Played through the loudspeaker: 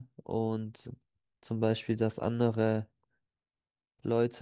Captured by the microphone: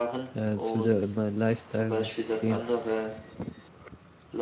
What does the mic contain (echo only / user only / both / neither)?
both